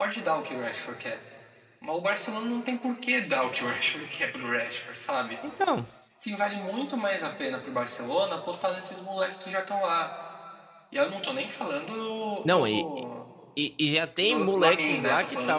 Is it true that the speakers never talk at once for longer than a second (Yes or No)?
No